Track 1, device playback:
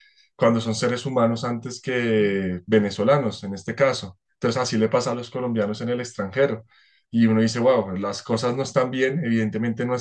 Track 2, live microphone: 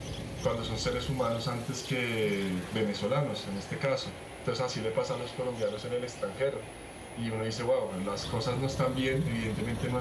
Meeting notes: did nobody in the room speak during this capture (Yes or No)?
Yes